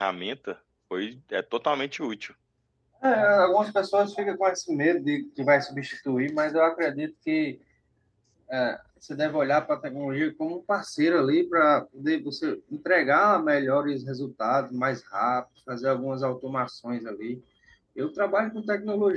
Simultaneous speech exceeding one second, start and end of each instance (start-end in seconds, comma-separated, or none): none